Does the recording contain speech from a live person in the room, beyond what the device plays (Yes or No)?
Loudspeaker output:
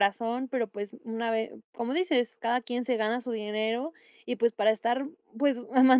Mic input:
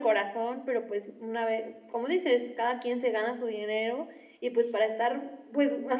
No